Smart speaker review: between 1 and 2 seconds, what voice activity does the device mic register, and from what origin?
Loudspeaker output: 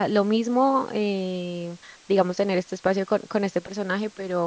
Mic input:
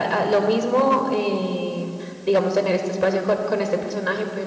echo only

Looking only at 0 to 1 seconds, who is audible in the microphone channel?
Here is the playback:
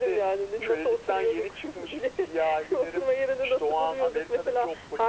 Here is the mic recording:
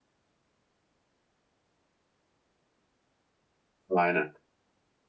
neither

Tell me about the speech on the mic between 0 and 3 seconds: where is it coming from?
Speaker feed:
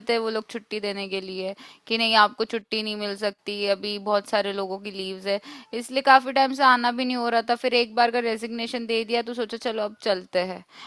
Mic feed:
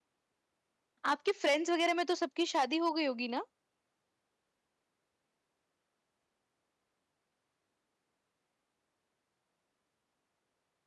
user only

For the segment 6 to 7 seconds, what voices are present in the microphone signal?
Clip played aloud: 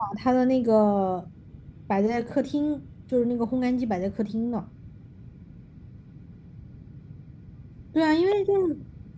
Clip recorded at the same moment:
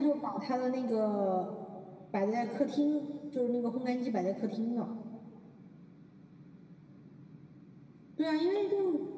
neither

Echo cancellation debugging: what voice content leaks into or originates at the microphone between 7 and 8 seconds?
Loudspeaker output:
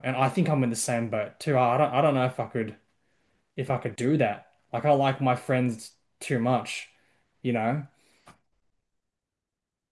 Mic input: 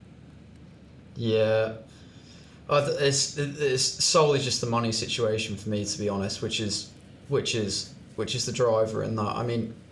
user only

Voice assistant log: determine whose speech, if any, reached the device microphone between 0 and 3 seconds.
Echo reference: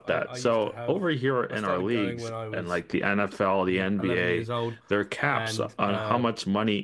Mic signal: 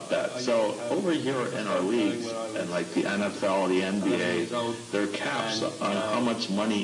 echo only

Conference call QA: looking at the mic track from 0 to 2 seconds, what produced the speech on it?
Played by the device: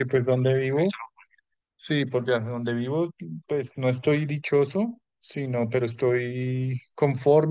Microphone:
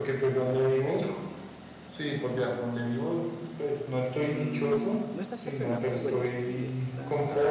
echo only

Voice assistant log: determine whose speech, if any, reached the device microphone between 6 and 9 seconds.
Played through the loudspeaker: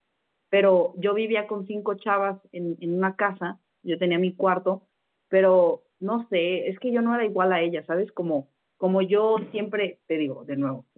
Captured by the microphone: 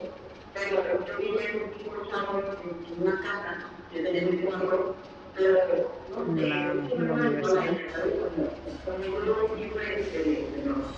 both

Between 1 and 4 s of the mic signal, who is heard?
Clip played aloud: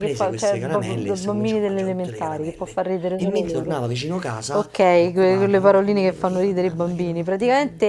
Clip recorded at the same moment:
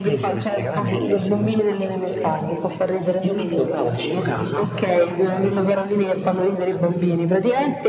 echo only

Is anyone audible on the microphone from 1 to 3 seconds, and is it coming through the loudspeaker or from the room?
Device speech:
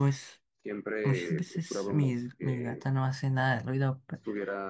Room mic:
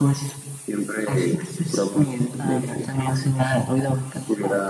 both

